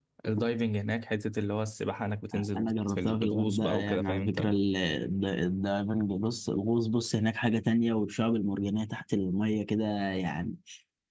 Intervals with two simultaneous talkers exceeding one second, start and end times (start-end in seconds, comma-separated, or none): 2.6-4.5